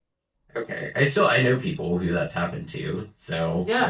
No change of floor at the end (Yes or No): No